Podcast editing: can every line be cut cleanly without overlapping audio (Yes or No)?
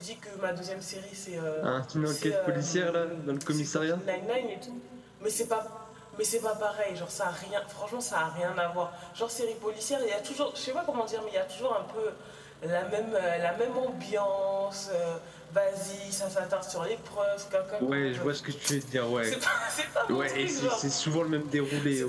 No